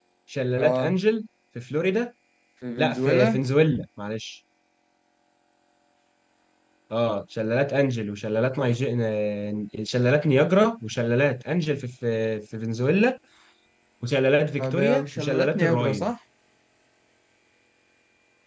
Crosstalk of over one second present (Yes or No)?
Yes